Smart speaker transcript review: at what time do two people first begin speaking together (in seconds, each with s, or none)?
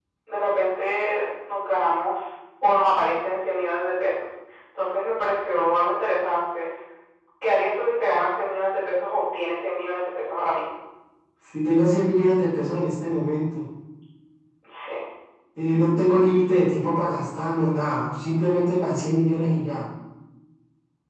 none